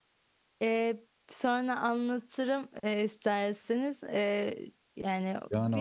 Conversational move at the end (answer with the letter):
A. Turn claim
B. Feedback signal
A